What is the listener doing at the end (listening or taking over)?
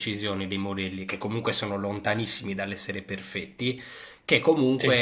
listening